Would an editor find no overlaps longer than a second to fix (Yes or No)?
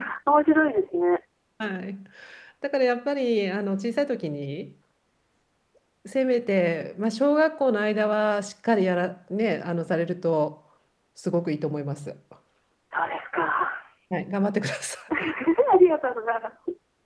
Yes